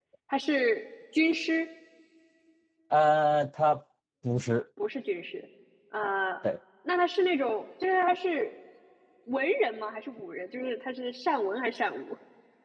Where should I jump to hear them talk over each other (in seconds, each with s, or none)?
none